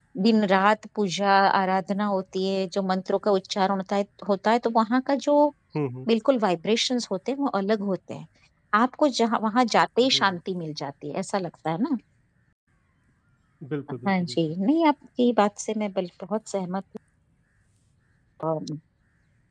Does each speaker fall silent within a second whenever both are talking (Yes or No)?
Yes